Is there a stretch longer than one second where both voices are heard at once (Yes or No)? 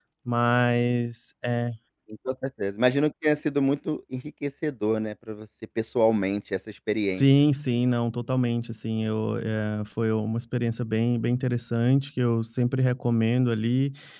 No